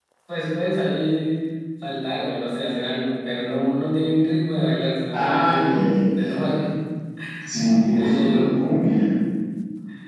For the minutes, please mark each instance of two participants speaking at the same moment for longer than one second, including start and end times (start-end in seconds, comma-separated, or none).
5.1-6.4